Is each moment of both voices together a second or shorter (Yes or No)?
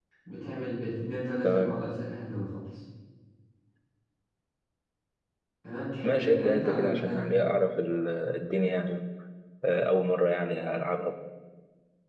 No